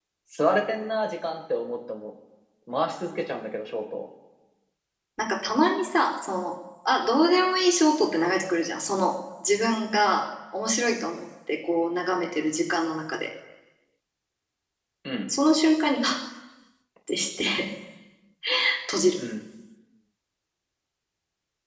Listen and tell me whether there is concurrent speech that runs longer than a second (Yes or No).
No